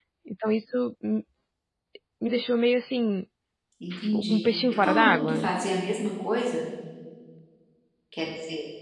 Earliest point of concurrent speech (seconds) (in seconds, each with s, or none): 3.9 s